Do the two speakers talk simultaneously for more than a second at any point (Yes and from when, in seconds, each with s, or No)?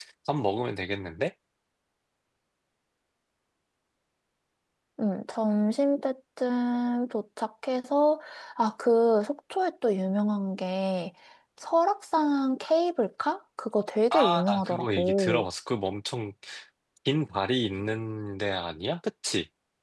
Yes, from 14.1 s